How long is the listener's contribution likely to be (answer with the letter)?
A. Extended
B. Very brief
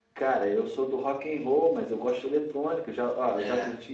B